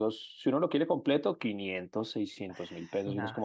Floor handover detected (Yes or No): No